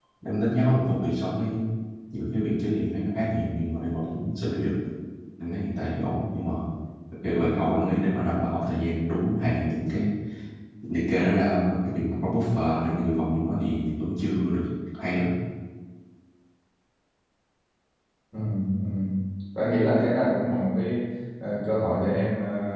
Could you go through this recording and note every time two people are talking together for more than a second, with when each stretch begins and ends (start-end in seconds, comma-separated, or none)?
none